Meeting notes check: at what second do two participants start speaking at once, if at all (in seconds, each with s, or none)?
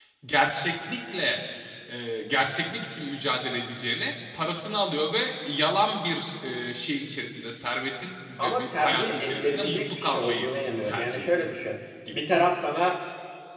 8.4 s